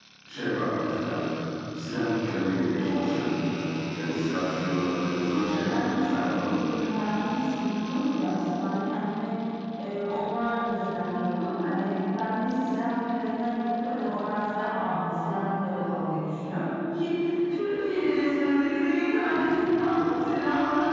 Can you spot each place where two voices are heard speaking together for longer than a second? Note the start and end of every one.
5.5-6.8

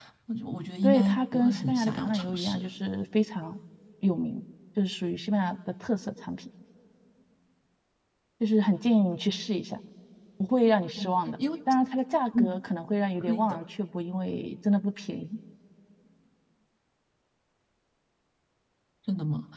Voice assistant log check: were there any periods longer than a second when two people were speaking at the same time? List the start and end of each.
0.8-2.6

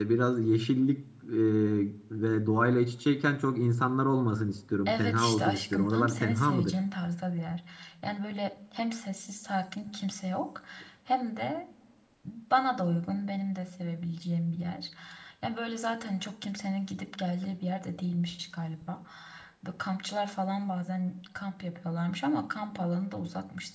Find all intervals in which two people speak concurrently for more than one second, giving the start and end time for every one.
4.9-6.8

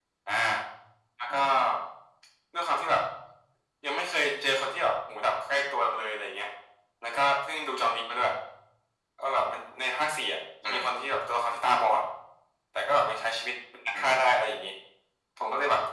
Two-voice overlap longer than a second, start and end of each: none

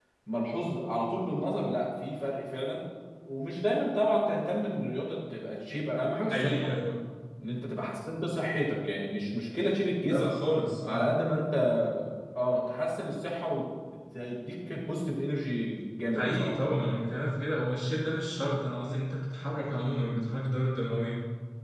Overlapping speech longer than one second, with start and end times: none

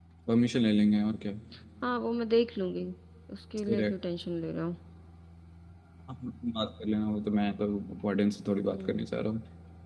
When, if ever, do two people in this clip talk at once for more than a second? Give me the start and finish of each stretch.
none

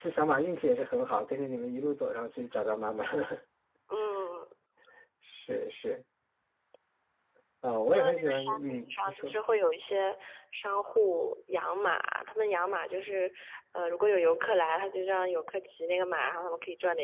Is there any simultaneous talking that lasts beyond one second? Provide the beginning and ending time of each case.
7.9-9.3

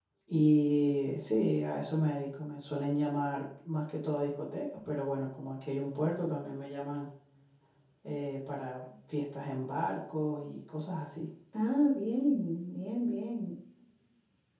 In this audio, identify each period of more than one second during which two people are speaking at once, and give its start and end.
none

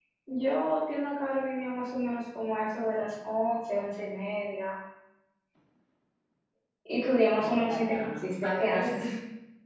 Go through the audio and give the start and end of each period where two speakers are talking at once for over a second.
7.4-9.0

